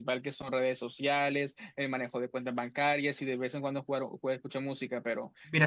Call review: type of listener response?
taking over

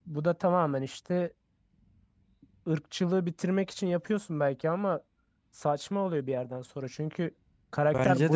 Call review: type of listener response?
taking over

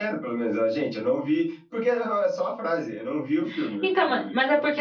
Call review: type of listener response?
taking over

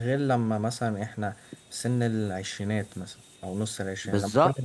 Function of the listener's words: taking over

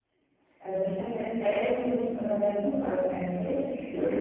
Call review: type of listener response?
listening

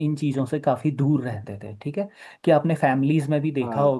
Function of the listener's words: listening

